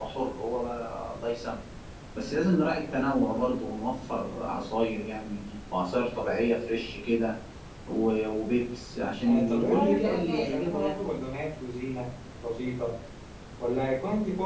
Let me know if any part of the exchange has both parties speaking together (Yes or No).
Yes